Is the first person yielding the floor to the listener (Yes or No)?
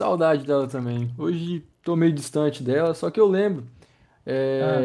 No